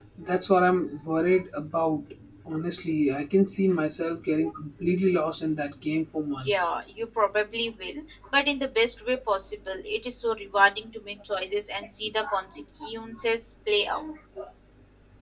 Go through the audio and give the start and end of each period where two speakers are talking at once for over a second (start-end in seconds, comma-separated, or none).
none